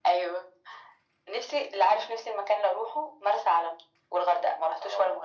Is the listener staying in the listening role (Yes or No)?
No